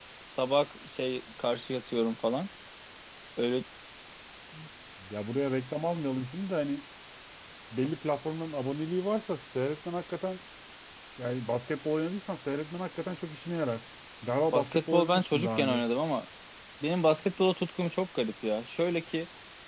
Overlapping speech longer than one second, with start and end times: 14.5-15.8

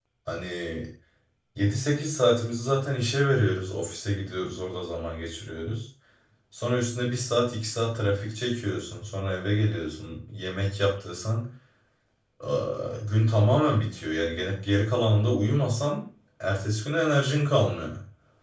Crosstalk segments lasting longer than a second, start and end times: none

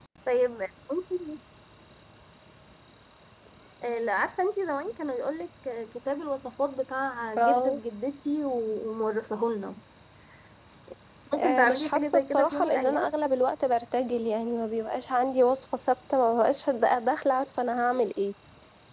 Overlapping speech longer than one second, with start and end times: 11.4-13.1

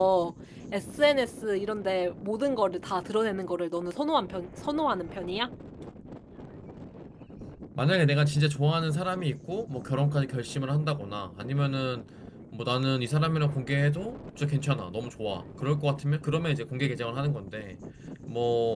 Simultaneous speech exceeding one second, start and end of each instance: none

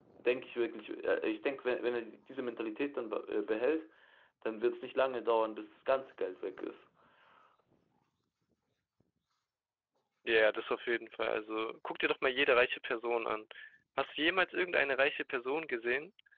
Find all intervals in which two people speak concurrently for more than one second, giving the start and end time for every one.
none

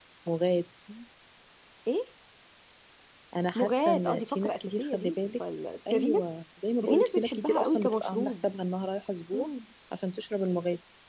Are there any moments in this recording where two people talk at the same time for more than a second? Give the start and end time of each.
3.6-5.4, 6.9-8.4

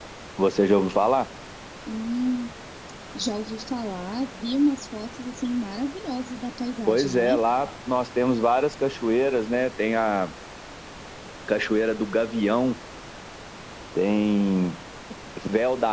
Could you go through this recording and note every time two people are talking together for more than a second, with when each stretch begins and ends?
none

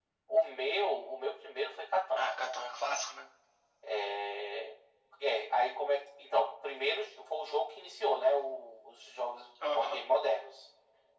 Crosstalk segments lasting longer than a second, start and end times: none

